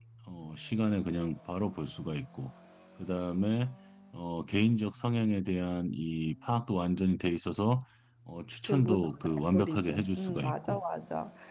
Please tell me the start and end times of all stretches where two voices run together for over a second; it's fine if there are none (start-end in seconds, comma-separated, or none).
8.7-10.8